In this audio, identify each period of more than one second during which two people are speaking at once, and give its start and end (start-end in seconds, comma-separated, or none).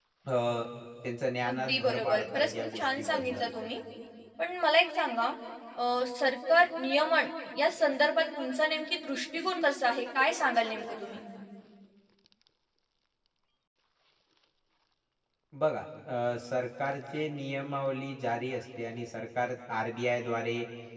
1.5-3.5